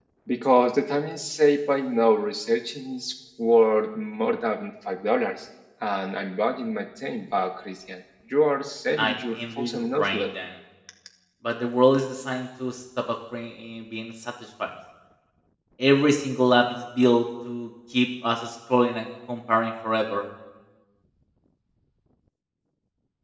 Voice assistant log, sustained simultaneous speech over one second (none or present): present